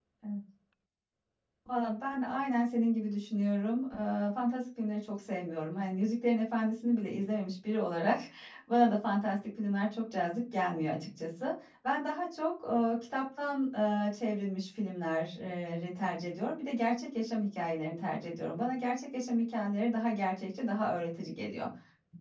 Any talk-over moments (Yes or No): No